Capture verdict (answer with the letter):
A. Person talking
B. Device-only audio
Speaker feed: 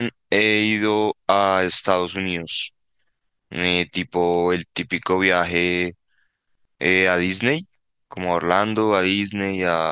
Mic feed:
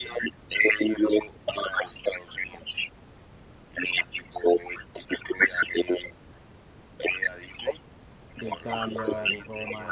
A